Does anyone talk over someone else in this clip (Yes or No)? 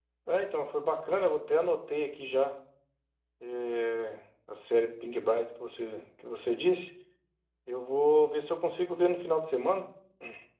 No